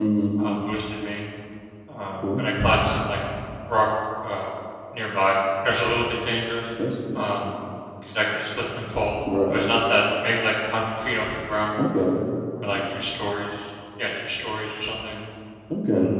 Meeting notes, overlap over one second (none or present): none